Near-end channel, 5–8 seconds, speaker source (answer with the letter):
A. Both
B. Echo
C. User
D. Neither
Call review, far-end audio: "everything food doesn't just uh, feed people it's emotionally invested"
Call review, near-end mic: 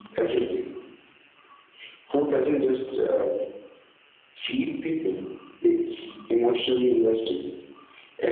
B